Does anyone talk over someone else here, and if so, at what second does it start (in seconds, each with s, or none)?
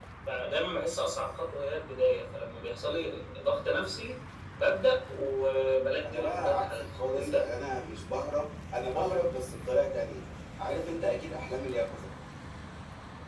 6.0 s